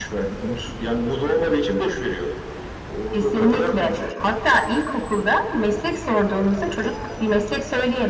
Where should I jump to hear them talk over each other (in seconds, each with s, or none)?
3.1 s